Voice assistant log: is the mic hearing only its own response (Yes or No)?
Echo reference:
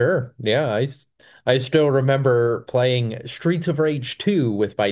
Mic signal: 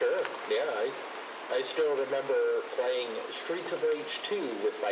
Yes